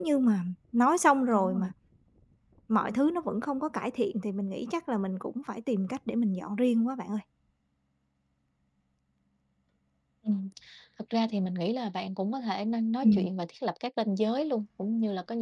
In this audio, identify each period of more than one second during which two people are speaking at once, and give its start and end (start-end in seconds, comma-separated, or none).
none